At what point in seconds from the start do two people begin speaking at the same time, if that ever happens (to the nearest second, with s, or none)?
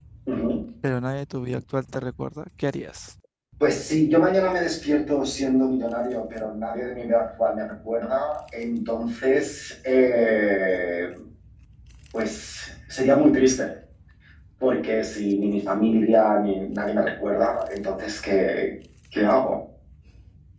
none